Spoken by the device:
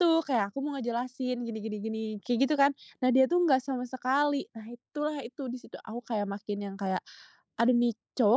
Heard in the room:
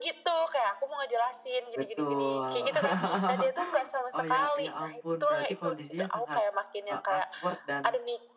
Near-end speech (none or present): present